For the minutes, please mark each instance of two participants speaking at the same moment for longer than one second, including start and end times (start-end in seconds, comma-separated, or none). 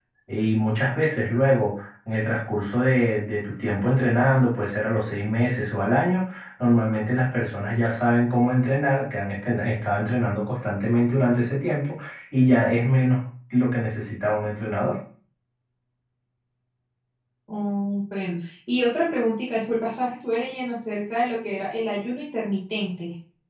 none